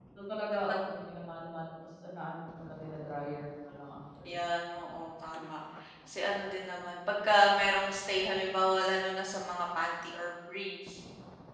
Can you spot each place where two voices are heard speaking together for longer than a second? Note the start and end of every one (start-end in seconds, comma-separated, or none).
none